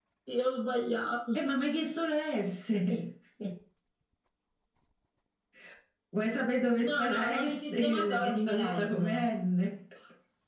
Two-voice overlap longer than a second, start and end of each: 6.9-9.2

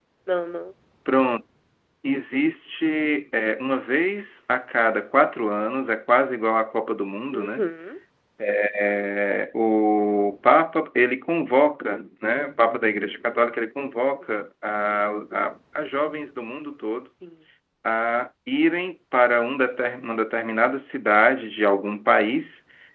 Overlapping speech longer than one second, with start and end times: none

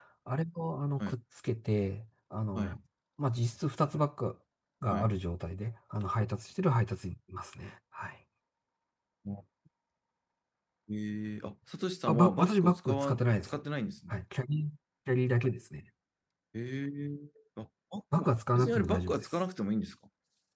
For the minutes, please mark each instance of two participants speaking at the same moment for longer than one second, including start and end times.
12.1-13.6, 18.1-19.4

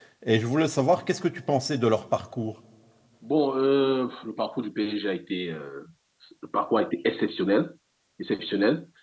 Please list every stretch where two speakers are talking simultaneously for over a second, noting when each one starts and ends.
none

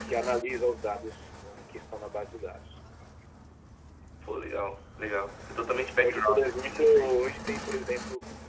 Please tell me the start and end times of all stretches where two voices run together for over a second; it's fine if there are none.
6.0-7.2

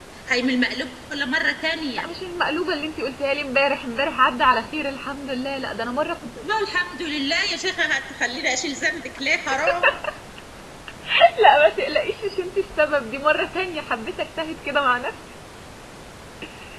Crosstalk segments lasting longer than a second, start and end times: none

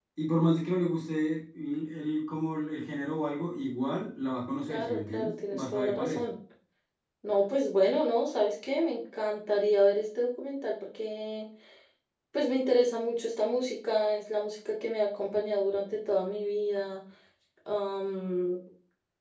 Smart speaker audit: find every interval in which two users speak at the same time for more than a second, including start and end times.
4.7-6.2

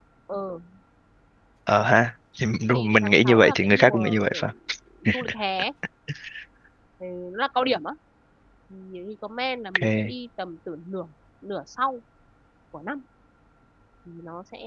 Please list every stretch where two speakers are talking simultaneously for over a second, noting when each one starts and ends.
2.7-4.5

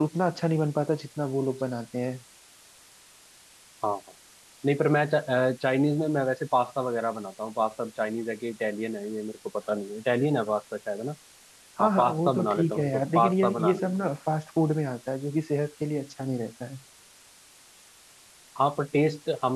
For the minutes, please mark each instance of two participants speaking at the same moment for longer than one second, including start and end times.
11.8-13.8

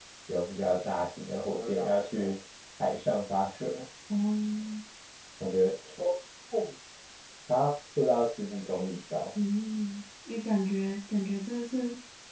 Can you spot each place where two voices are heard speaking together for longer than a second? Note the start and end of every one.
none

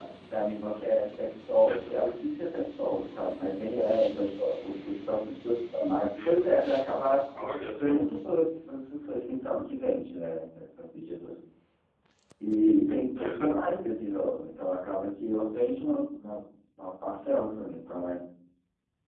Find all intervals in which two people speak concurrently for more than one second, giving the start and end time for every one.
none

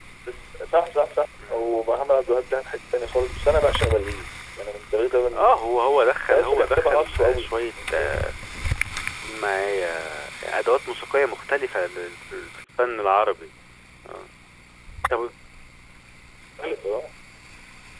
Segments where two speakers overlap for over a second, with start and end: 6.3-7.5

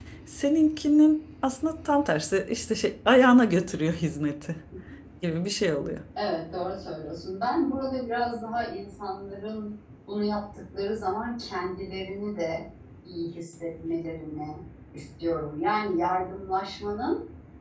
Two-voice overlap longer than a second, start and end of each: none

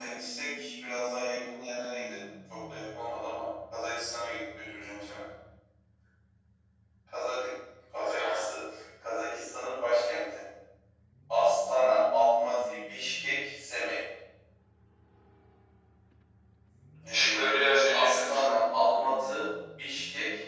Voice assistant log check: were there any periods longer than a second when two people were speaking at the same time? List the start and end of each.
17.1-18.4

